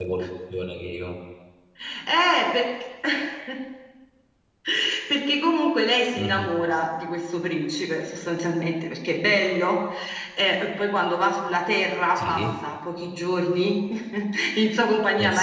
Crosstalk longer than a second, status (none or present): none